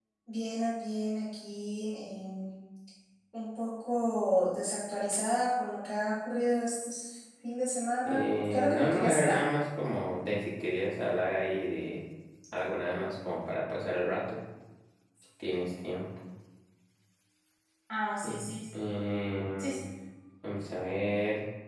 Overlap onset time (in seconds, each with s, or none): 8.1 s